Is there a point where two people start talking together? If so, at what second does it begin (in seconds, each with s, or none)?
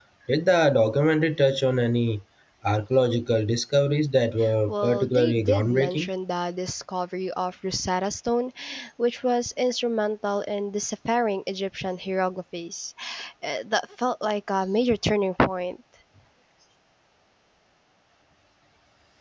4.7 s